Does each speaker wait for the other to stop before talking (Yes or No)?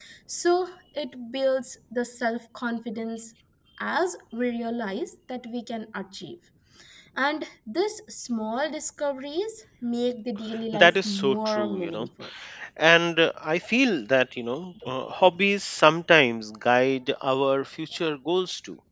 No